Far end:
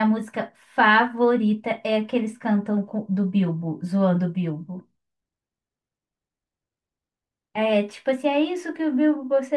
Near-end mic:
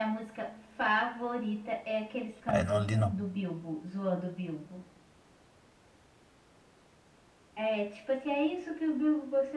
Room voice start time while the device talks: 2.5 s

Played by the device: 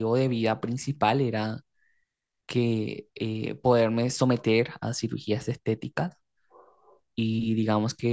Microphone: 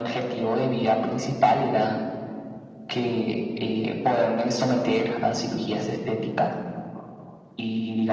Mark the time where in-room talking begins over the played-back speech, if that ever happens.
none

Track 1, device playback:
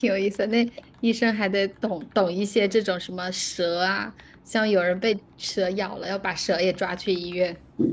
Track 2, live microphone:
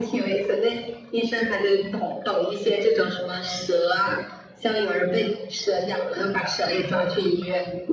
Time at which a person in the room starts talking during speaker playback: none

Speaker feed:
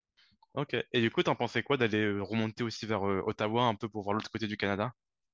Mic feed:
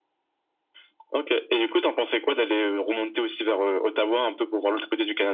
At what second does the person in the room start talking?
none

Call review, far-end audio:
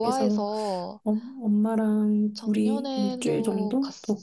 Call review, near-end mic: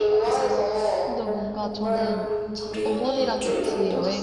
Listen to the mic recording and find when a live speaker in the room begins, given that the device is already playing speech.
1.0 s

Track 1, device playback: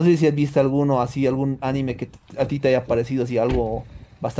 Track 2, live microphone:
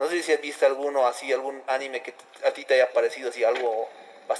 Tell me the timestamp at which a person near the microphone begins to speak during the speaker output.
none

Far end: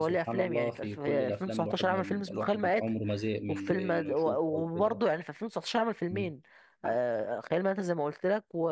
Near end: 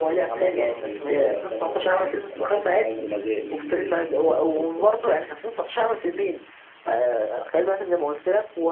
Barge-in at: none

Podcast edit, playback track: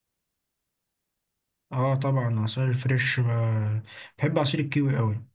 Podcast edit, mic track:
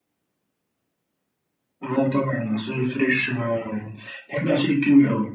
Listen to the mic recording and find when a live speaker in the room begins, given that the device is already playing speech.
none

